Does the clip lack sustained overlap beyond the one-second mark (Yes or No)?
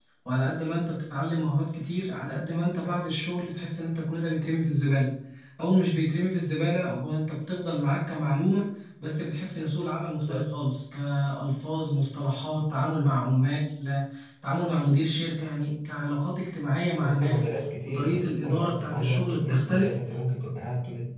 No